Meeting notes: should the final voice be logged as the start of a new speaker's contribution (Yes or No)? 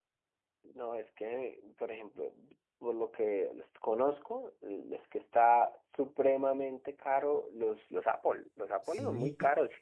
No